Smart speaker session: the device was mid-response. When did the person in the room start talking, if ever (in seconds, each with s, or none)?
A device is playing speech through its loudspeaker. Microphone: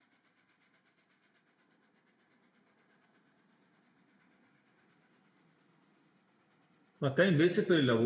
7.0 s